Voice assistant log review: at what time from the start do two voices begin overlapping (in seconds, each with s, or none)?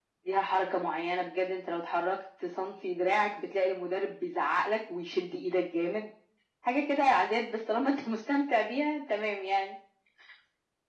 none